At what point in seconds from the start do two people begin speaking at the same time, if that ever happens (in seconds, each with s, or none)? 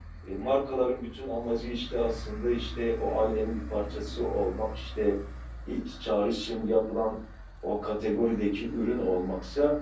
none